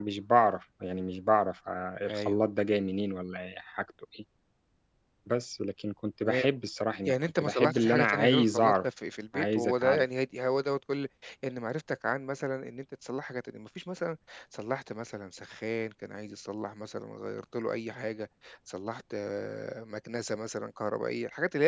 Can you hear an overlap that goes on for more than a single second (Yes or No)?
Yes